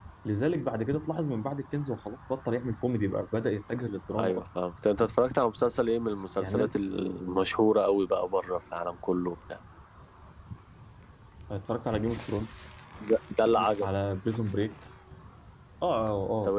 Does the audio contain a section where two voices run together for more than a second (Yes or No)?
No